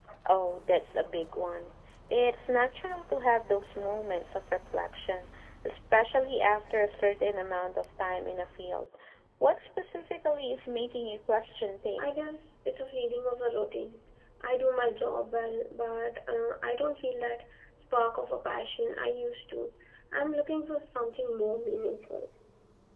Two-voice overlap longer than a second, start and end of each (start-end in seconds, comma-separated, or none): none